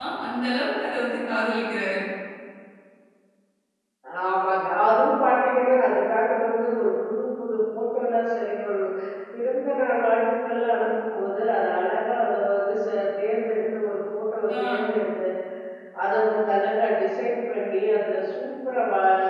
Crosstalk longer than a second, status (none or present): none